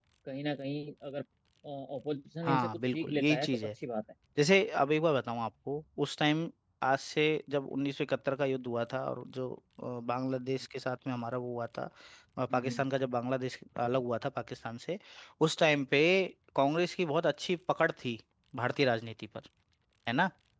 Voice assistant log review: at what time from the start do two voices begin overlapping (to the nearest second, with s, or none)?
2 s